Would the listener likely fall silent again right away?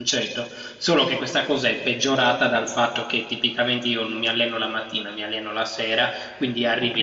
Yes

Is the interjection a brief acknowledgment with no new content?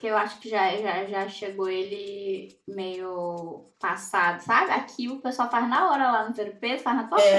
No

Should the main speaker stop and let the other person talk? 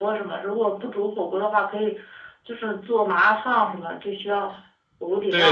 Yes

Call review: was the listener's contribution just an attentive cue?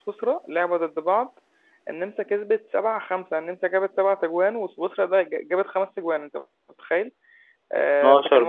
Yes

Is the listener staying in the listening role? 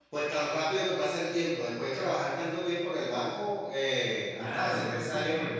No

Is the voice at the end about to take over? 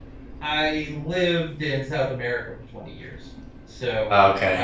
No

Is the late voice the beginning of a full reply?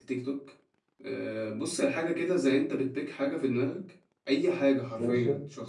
No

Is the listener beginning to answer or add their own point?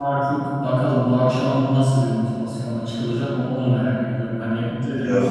No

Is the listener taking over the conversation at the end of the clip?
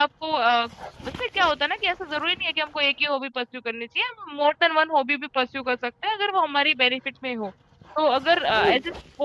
No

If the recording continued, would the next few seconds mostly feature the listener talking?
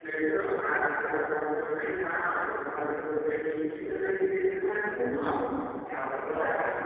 No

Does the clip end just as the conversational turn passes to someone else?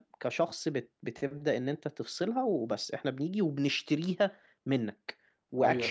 No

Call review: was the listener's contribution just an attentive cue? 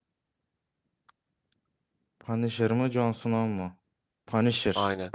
Yes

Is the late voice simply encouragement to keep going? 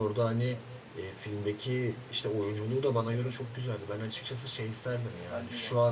Yes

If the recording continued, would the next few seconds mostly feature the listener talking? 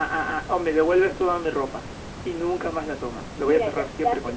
Yes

